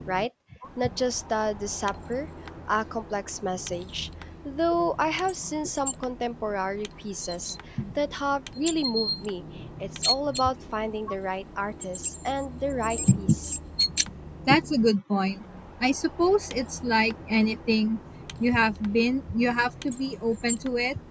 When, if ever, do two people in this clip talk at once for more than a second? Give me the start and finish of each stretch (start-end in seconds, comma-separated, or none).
none